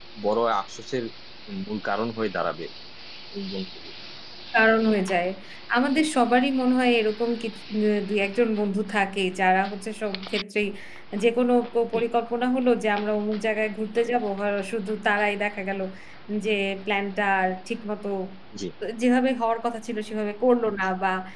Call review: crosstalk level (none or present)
none